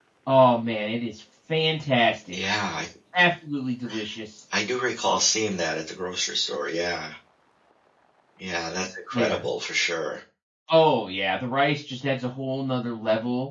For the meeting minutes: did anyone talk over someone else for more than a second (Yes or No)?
No